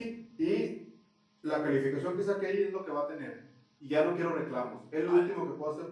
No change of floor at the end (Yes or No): Yes